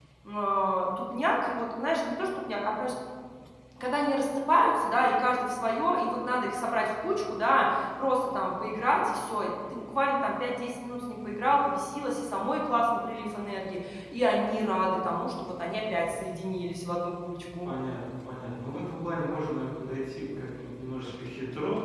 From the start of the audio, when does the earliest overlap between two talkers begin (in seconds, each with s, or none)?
none